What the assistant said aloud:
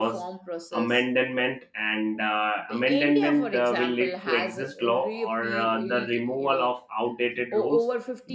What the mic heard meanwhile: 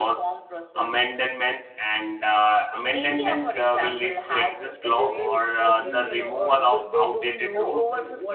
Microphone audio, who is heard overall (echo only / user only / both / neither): both